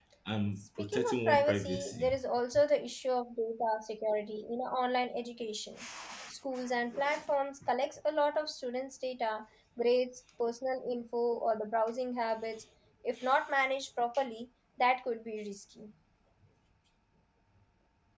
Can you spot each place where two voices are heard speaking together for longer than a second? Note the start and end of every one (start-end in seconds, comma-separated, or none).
0.8-2.2